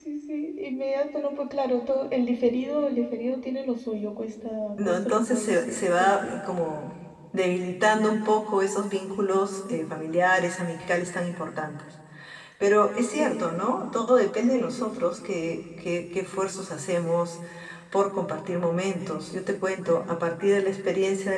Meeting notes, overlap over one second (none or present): present